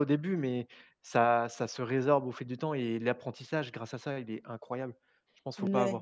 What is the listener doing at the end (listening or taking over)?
taking over